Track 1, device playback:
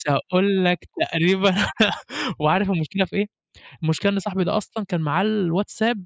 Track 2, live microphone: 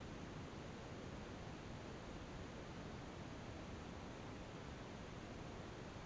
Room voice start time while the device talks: none

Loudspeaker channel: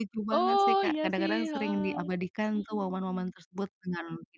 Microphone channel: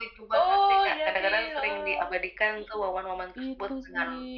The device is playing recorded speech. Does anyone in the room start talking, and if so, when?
3 s

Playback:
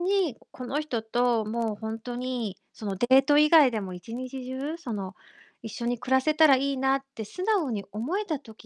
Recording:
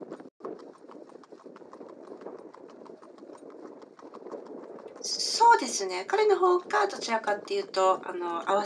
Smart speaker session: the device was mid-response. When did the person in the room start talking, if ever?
5 s

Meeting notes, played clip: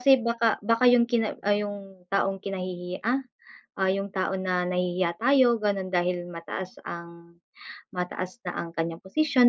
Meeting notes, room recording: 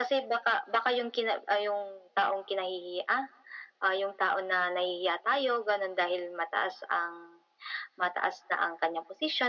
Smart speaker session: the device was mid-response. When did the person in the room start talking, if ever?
none

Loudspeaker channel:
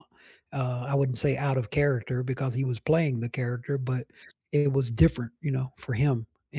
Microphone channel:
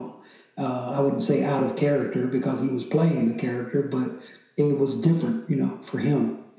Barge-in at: none

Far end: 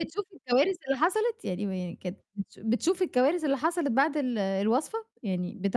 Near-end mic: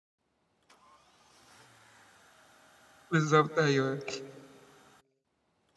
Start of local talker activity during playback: 3 s

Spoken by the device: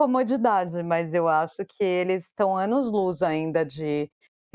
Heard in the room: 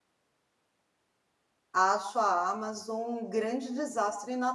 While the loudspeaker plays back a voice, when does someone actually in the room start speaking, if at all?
2 s

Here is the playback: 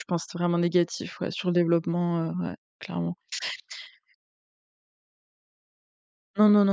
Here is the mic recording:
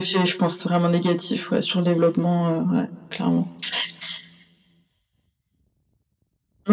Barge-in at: none

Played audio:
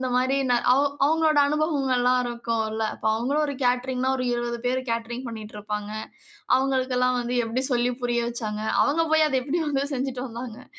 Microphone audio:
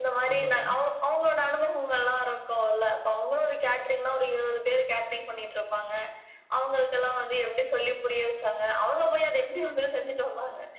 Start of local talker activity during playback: 0 s

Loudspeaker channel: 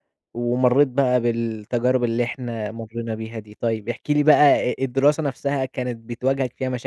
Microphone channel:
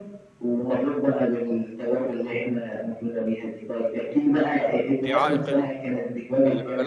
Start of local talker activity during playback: 5 s

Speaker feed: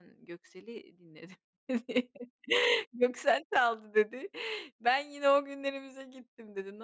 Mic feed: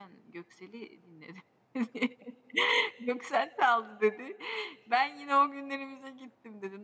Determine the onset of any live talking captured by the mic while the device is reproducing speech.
none

